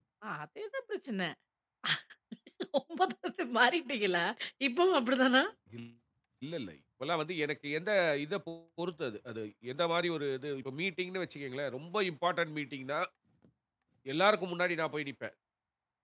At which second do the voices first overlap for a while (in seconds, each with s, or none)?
none